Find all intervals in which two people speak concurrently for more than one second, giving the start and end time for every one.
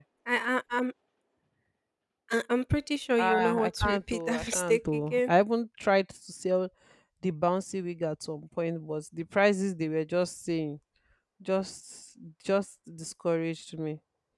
3.2-5.3

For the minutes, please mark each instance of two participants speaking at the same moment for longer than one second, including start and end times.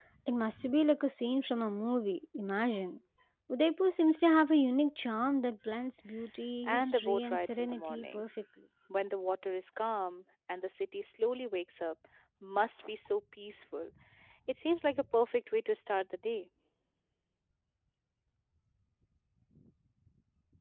6.7-8.2

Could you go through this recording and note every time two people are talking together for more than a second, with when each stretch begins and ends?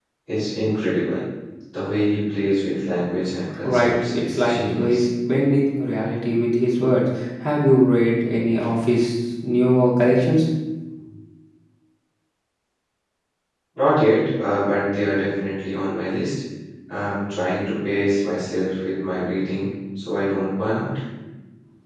3.6-5.0

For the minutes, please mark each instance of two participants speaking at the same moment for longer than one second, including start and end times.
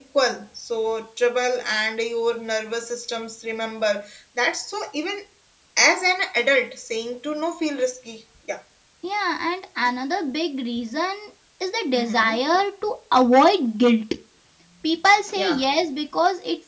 none

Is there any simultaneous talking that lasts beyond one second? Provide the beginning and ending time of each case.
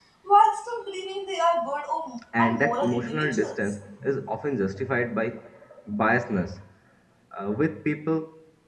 2.4-3.7

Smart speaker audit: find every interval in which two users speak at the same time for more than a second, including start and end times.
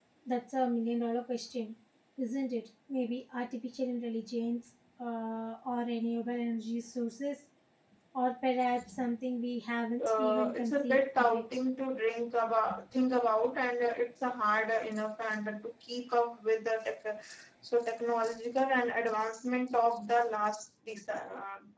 10.0-11.4

